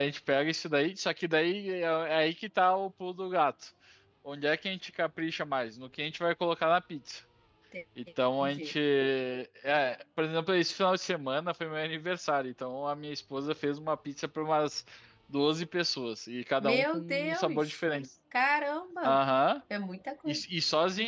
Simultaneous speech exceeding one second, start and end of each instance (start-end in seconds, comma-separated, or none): 16.6-17.8